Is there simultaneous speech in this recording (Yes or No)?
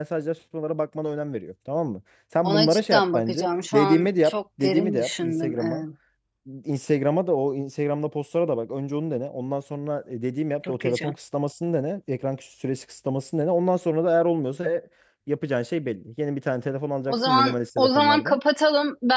Yes